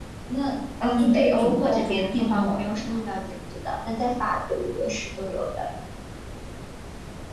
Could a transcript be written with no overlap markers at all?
No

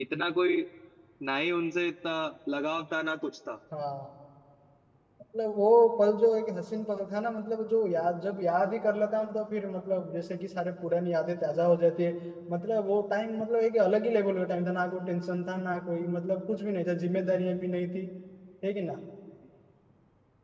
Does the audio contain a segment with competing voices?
No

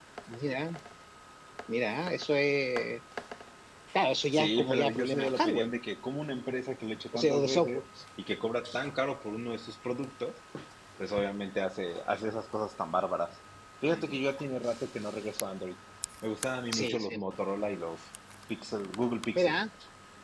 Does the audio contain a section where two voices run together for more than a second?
Yes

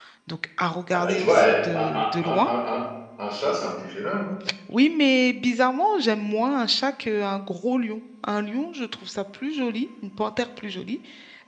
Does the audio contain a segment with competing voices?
Yes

